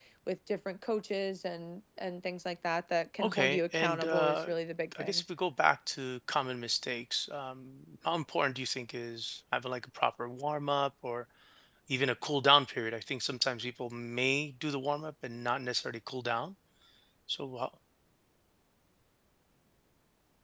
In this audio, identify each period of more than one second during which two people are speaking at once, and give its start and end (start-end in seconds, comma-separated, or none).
3.2-4.5